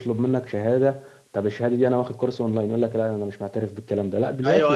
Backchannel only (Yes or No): No